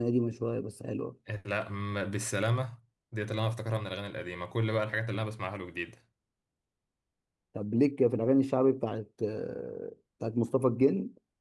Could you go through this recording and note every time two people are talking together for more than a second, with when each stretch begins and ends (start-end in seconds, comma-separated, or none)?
none